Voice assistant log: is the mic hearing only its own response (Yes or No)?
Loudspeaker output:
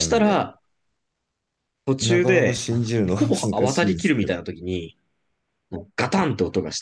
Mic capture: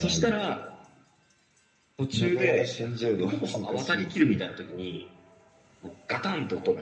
Yes